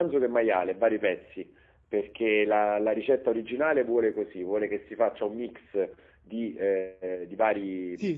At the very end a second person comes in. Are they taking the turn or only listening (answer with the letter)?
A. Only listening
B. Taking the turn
A